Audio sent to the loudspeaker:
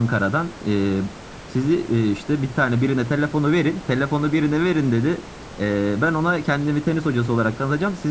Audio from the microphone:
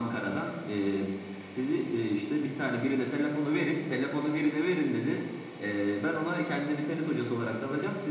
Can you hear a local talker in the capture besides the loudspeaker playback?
No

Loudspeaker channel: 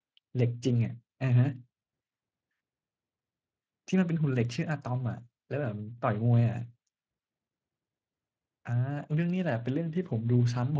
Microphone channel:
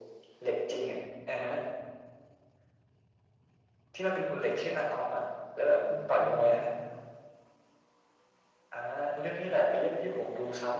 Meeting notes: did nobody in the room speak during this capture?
No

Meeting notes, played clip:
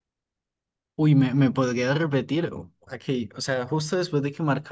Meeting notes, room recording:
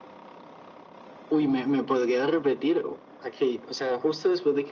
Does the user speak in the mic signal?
No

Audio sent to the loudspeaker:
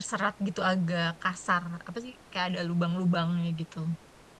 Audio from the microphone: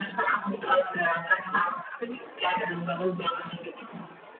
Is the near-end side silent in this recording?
Yes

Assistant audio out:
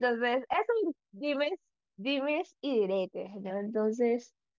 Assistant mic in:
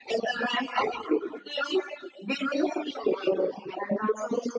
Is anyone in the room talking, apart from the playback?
No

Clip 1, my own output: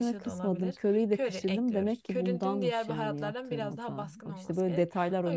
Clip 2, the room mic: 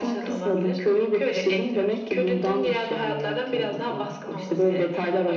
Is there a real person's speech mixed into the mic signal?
No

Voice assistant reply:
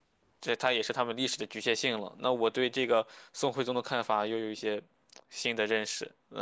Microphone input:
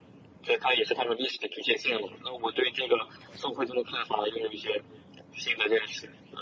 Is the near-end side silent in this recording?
Yes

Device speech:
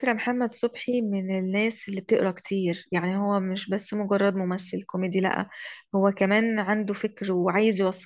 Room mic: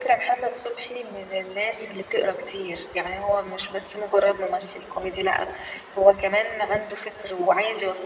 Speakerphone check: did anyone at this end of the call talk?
No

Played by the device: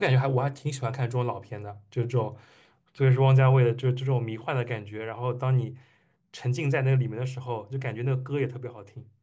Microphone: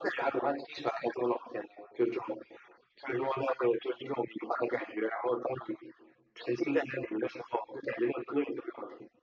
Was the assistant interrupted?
No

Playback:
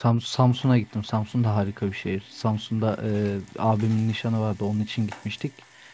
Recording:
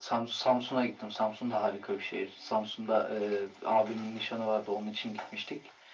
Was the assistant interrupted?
No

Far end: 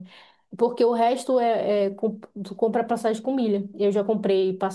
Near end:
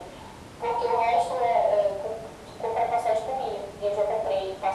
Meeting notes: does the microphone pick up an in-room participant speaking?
No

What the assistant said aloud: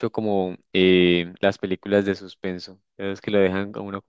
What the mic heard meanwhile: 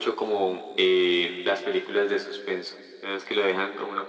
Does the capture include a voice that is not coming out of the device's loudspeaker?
No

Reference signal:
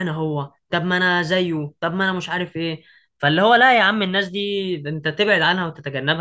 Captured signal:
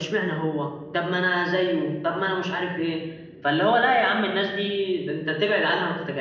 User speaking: No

